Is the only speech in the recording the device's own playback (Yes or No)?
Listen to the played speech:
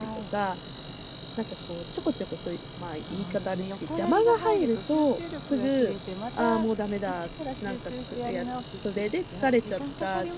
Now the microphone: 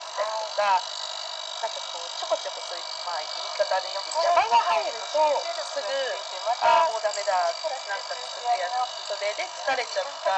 Yes